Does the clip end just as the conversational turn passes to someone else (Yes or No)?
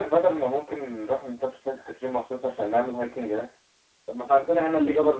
No